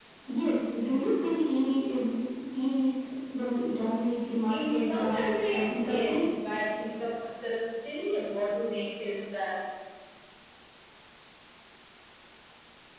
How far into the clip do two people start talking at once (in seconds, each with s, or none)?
4.5 s